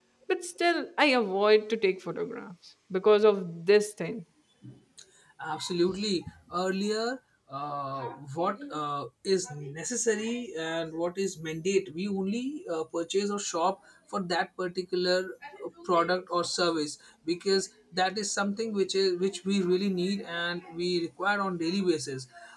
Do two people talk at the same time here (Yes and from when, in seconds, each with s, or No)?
No